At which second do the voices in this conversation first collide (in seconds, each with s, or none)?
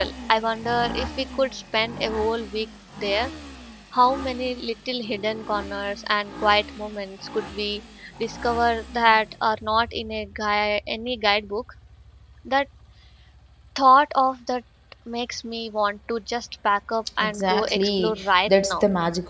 17.2 s